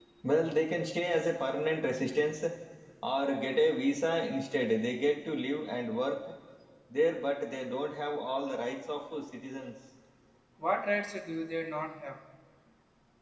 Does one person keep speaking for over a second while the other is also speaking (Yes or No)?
No